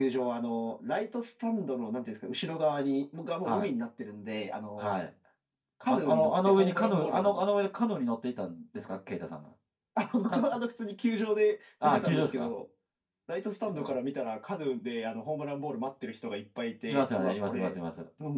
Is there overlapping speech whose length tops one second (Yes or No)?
Yes